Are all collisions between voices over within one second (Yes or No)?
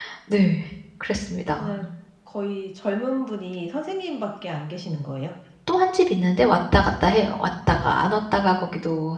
Yes